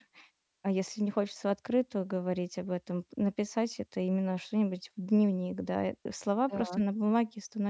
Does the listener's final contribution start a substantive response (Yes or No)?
No